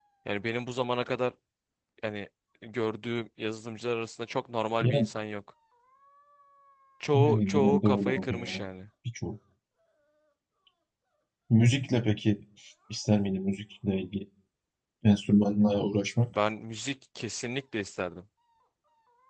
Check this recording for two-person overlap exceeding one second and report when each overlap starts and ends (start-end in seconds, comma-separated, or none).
7.1-8.6